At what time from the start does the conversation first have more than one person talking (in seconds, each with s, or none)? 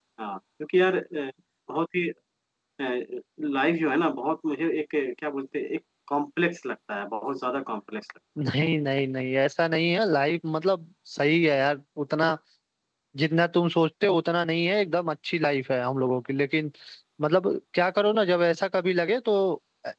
none